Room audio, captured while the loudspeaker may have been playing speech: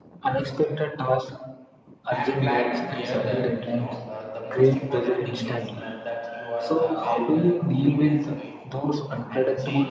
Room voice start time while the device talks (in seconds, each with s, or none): 2.1 s